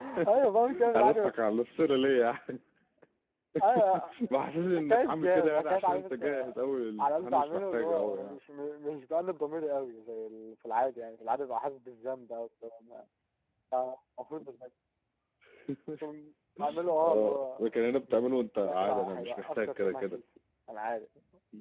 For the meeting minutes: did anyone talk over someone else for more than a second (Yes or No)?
Yes